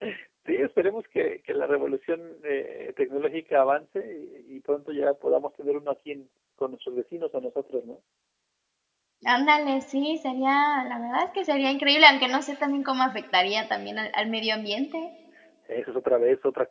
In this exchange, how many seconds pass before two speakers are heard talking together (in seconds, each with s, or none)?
none